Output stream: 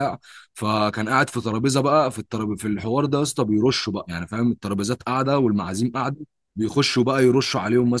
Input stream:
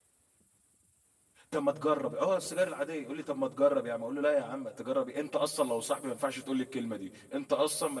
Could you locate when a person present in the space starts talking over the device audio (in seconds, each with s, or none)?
1.5 s